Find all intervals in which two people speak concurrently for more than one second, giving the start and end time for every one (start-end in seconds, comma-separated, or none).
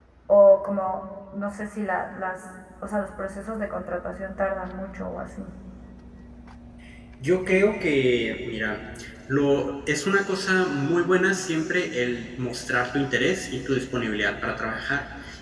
none